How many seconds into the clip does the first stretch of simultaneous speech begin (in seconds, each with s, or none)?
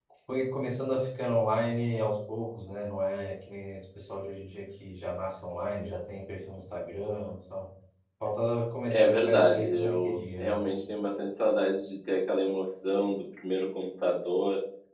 8.9 s